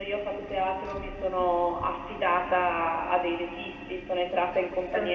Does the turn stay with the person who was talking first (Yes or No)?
Yes